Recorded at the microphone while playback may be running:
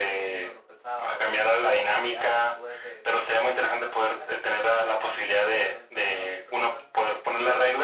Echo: present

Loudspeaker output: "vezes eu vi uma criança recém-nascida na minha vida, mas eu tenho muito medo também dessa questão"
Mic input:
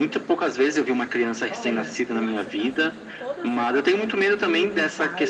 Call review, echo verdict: present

